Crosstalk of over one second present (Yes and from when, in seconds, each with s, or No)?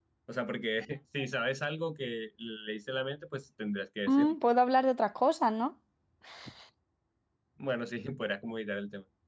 No